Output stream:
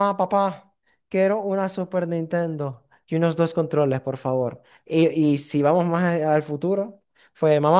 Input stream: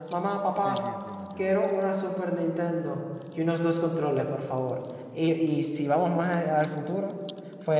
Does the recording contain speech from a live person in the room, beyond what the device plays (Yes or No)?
Yes